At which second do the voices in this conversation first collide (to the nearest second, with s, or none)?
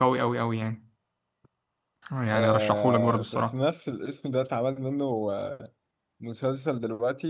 2 s